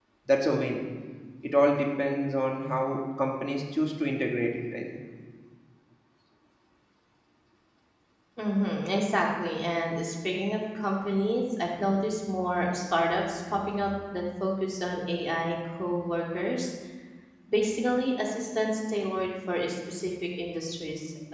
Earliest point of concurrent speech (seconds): none

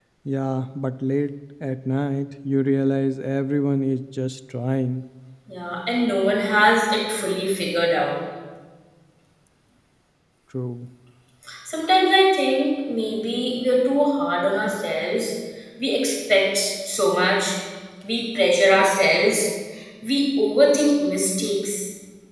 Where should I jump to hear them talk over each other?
none

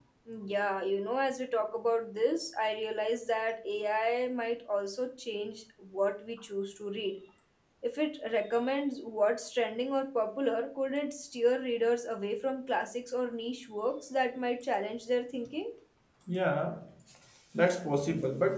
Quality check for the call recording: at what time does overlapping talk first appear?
none

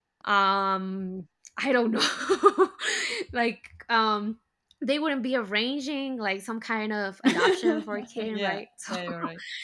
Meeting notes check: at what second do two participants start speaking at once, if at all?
7.2 s

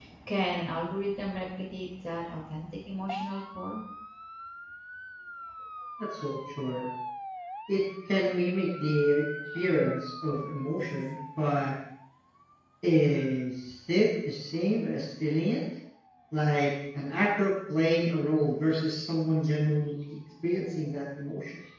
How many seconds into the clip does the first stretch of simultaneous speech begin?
none

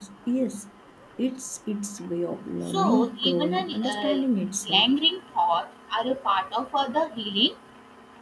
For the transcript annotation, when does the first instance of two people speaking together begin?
2.7 s

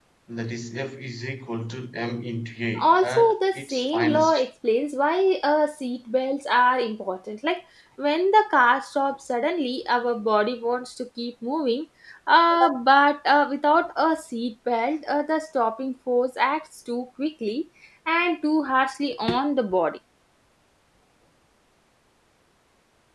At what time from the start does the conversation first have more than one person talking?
2.8 s

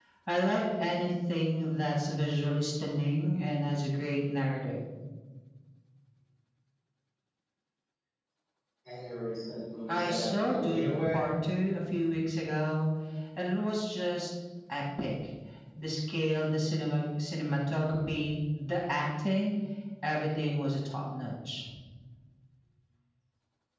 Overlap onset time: 9.9 s

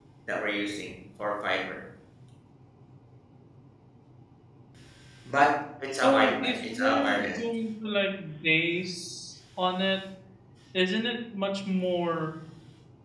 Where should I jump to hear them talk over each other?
6.0 s

